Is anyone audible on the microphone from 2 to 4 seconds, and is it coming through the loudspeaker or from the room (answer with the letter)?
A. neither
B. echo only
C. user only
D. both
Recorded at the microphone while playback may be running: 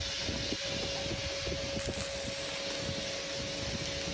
A